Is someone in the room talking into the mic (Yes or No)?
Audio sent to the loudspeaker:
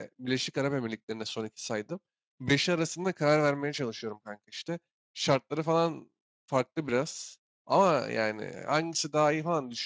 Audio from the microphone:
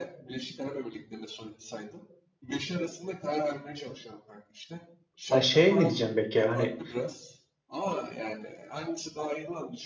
Yes